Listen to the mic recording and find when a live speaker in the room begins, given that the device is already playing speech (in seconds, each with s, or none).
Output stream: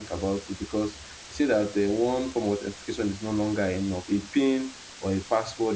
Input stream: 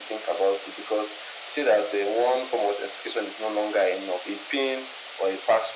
none